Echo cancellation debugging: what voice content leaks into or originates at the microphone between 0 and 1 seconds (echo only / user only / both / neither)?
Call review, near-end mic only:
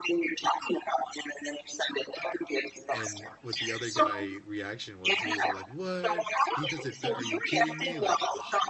echo only